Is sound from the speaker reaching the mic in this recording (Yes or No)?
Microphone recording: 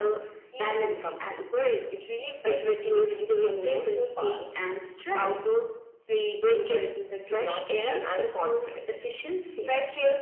Yes